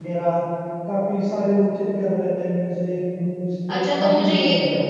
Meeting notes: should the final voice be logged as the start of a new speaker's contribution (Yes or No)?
Yes